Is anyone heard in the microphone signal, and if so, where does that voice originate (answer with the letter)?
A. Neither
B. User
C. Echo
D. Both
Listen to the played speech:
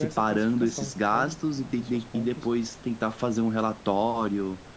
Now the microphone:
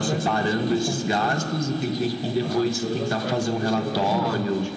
D